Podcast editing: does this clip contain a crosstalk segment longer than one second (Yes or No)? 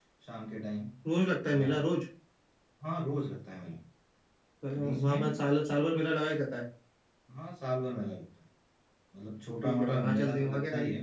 Yes